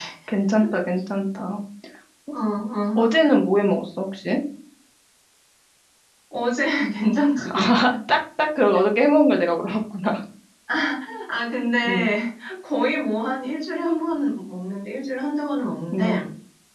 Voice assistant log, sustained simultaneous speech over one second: none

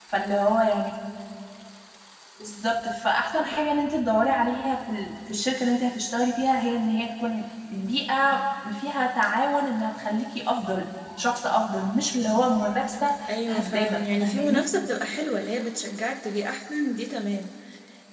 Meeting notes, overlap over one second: present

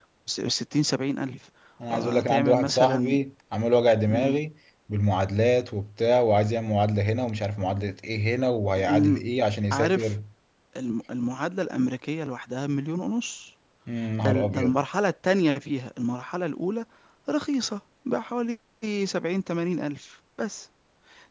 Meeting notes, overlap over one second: present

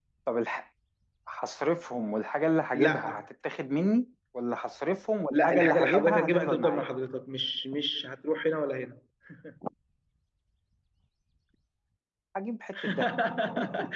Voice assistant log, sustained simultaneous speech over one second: present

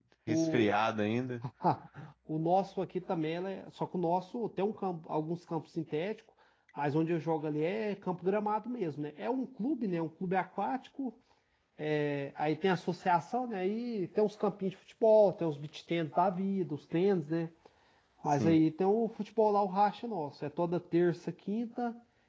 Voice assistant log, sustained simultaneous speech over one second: none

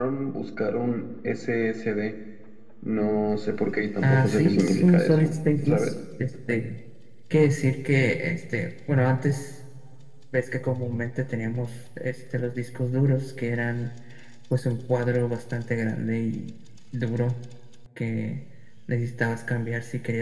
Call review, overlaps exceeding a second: present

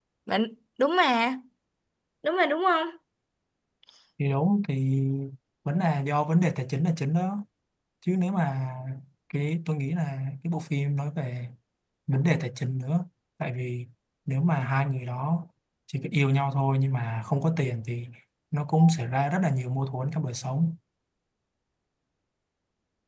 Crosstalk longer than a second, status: none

